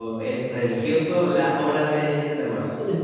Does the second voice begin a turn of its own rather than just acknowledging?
No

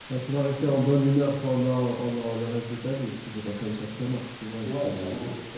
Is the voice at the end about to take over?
Yes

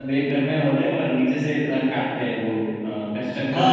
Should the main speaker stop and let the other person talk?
Yes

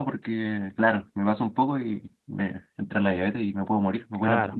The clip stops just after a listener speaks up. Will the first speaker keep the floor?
No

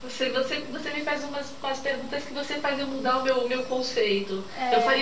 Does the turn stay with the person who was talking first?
Yes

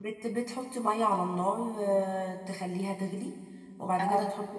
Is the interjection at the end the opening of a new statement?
No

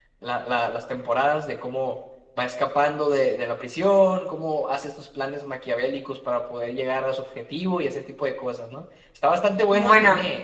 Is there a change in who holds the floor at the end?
No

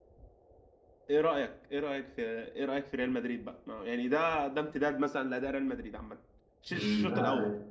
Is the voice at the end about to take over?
Yes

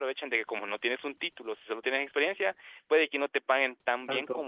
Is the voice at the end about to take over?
No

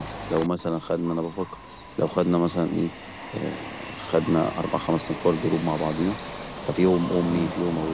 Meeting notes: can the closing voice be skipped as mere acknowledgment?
Yes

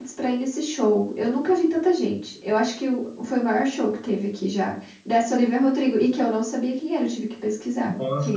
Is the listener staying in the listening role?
No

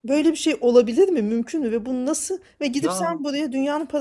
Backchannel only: Yes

